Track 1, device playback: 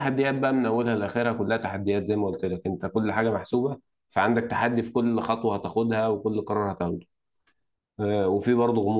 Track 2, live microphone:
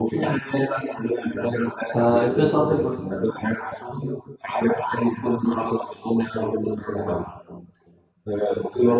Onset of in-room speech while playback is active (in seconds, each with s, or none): 1.9 s